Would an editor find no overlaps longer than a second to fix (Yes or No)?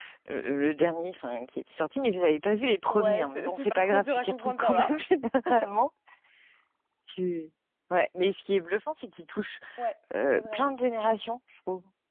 No